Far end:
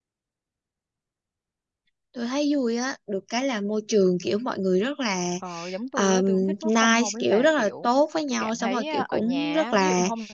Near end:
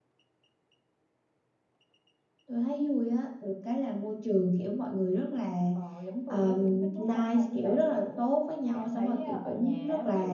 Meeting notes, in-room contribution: none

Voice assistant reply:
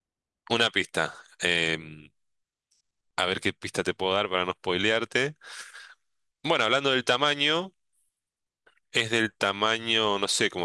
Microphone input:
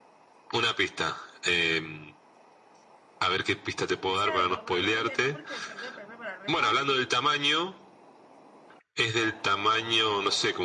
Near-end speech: present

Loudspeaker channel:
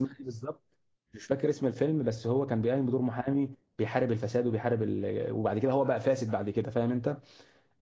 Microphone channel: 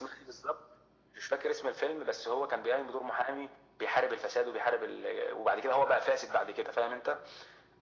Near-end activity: none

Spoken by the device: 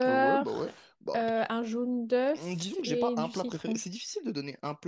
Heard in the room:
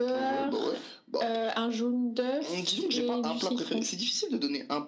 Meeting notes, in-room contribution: none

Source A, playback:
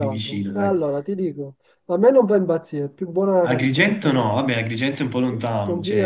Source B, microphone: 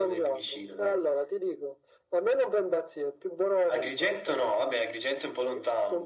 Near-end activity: none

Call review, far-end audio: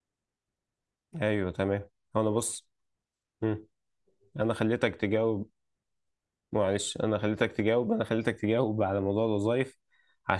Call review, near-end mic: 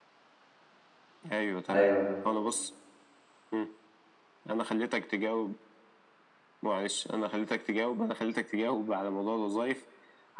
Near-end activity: present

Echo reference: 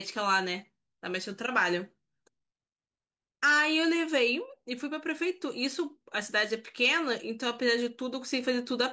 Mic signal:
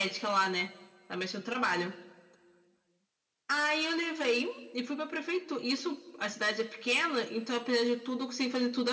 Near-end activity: none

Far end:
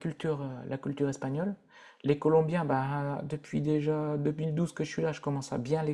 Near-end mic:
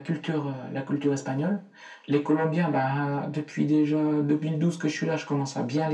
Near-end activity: none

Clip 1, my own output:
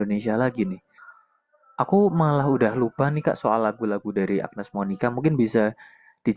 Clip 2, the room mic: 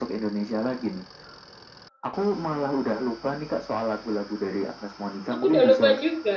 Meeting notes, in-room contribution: present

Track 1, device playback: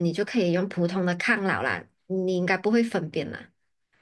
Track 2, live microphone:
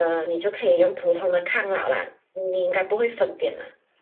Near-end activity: none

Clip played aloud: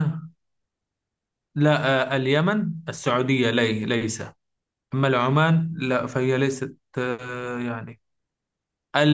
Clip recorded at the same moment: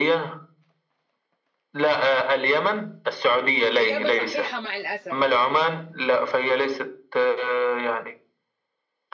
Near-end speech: present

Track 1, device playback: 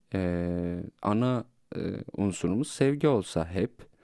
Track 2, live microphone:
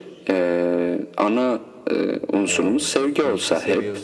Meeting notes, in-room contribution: present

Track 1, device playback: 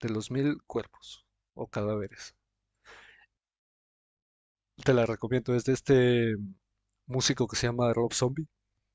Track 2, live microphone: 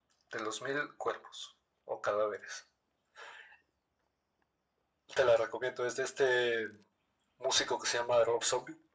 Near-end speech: none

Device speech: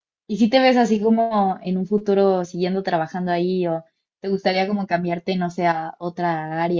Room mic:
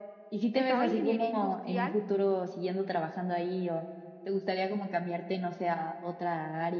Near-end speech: present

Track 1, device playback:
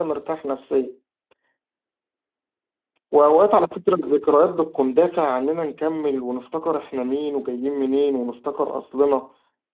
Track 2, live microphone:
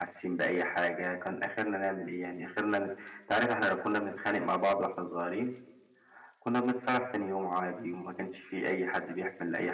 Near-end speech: present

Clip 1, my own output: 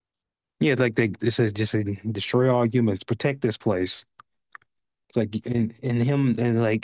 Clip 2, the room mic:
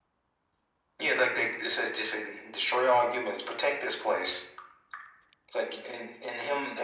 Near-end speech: none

